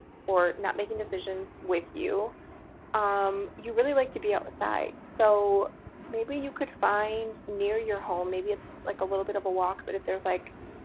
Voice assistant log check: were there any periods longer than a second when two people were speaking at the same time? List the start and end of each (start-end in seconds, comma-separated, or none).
none